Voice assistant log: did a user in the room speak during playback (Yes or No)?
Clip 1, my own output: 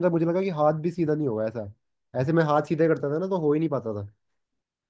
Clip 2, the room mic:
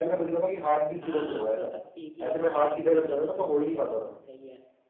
Yes